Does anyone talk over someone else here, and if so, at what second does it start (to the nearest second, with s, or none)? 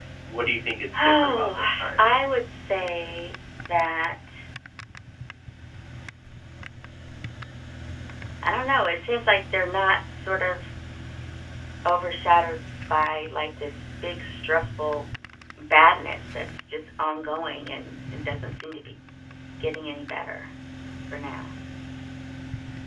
1 s